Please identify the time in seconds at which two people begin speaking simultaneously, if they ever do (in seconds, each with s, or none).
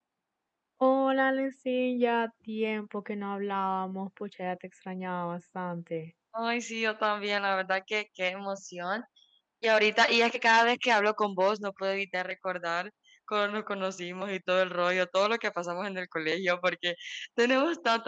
none